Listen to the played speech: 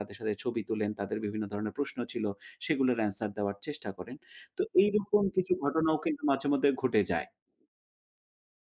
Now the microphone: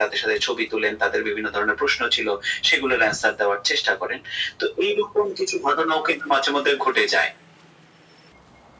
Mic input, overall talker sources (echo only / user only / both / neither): echo only